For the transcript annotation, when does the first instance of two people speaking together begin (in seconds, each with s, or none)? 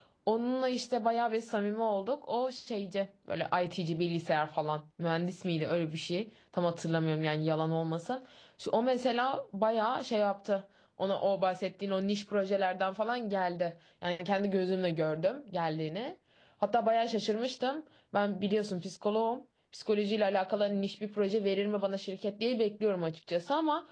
none